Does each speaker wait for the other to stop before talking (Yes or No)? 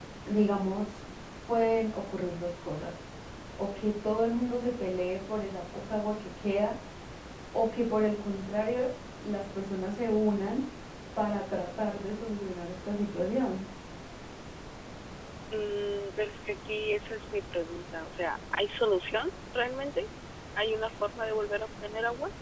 Yes